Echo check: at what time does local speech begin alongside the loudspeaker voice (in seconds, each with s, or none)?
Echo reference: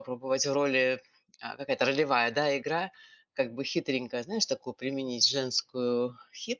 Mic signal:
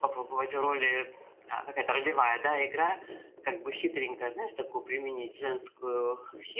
none